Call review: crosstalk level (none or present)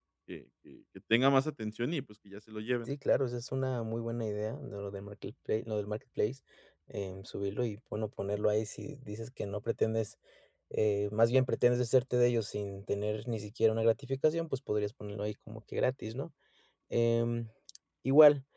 none